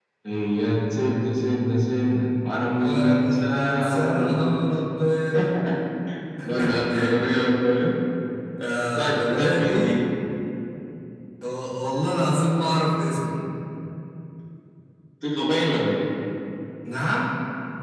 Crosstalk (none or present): present